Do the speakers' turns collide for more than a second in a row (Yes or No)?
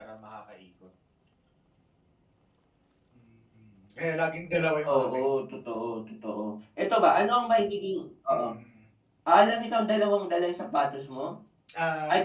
No